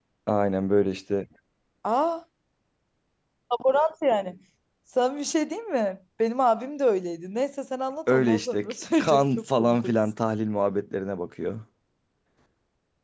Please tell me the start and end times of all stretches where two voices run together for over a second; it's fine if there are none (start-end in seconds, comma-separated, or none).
8.1-9.9